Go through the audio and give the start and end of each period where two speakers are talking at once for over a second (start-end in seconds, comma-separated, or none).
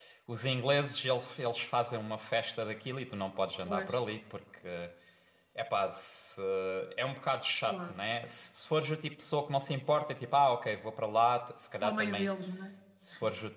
none